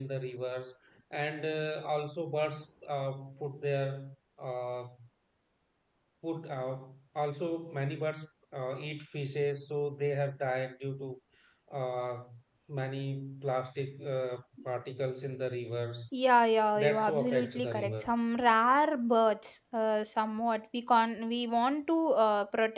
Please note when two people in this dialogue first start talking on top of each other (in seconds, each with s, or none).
16.8 s